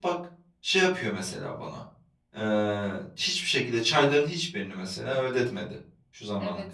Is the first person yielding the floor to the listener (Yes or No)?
Yes